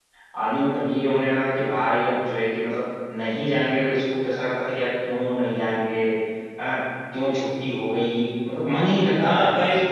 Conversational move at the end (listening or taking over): taking over